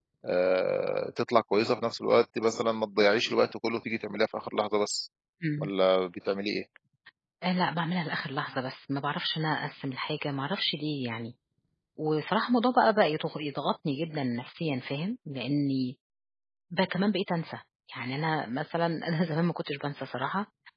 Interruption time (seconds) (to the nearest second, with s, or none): none